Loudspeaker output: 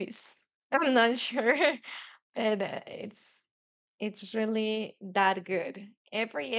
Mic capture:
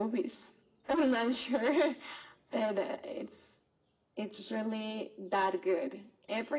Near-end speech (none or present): none